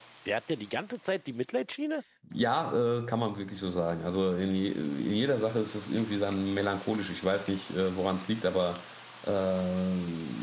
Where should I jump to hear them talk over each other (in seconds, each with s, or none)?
none